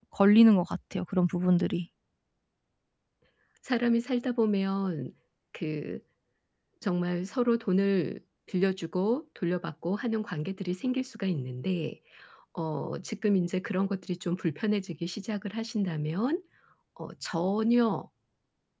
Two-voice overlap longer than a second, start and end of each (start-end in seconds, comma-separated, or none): none